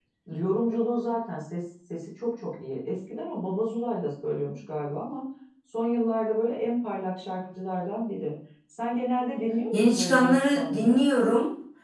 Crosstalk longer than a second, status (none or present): present